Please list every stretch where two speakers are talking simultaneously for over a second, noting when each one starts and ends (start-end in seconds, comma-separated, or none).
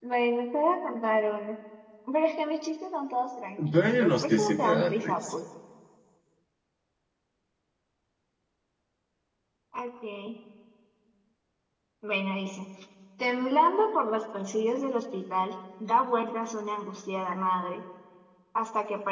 3.7-5.4